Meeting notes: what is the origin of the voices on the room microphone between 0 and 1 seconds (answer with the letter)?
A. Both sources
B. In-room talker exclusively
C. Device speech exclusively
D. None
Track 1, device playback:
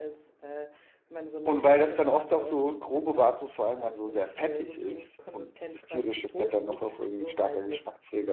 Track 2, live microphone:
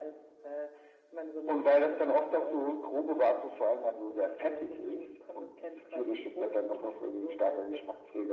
C